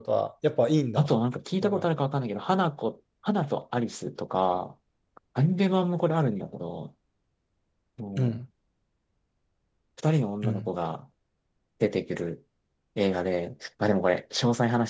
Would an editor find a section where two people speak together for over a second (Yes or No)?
No